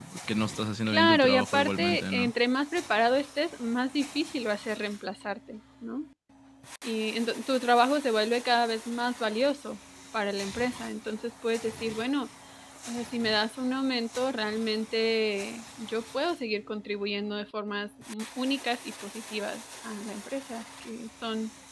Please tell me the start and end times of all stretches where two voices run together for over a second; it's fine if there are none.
0.9-2.3

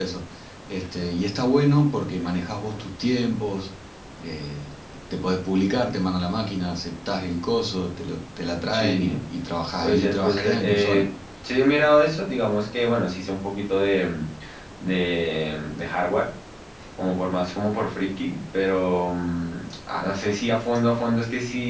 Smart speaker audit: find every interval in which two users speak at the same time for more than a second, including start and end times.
9.8-11.1

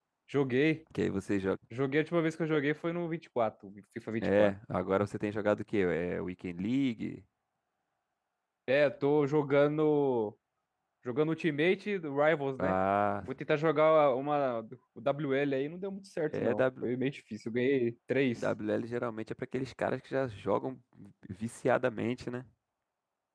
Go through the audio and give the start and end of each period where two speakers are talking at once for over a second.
none

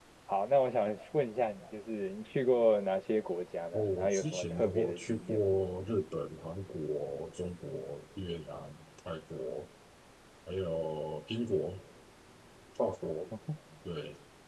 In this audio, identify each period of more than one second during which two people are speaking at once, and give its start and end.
3.7-5.4

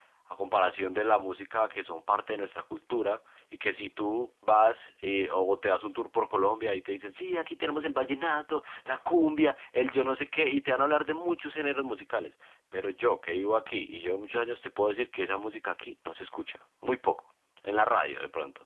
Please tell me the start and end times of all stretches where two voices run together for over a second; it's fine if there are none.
none

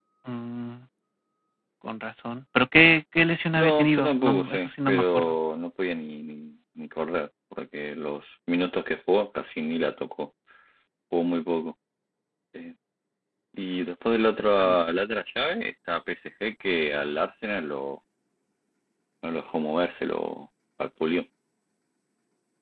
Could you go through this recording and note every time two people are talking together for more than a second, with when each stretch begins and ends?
3.6-5.3

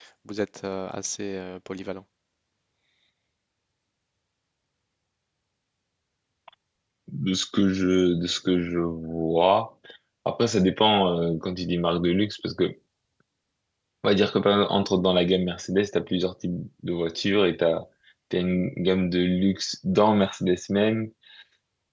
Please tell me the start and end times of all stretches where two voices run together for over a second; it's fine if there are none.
none

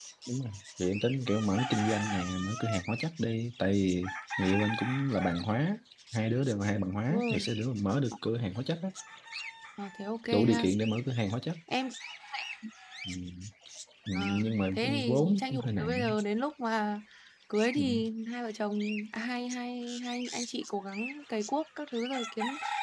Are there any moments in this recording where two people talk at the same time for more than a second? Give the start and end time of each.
14.2-16.1

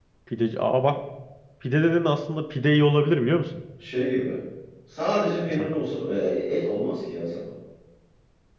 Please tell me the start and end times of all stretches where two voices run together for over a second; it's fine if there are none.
none

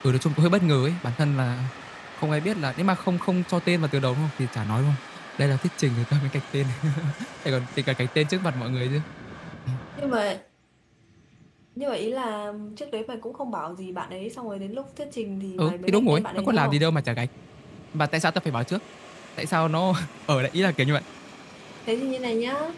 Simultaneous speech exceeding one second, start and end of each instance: 15.6-16.8

